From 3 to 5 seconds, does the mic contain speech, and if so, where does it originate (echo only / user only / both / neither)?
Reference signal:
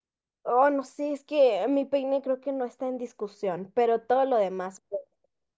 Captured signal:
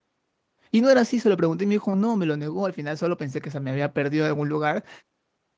user only